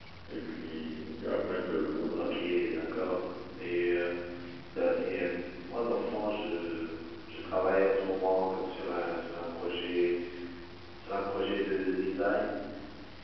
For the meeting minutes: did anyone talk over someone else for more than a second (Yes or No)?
No